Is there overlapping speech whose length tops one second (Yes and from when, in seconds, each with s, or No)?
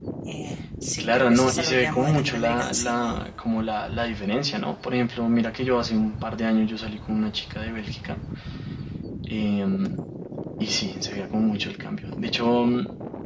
Yes, from 1.0 s